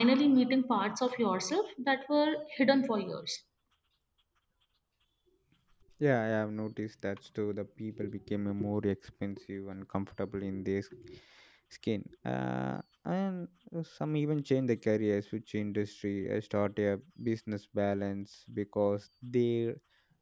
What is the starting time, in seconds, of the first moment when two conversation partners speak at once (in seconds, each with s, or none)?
none